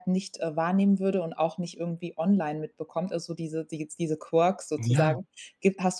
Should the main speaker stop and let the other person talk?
No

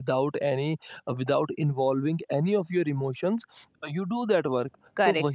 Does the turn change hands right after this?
No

